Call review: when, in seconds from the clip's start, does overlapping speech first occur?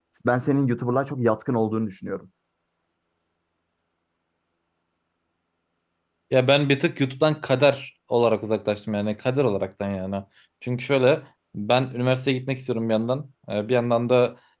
none

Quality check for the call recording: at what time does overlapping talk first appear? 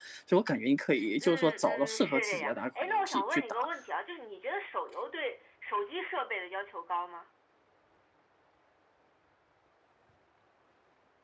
1.2 s

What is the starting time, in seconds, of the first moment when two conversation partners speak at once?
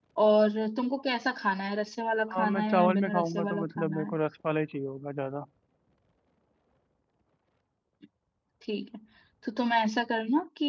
2.3 s

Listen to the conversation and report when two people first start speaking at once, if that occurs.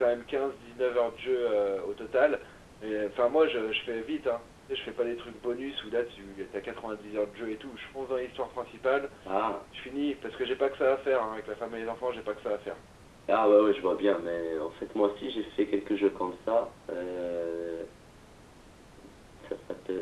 none

